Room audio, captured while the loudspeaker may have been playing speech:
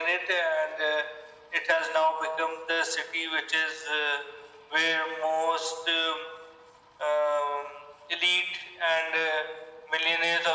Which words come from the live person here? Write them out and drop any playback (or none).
none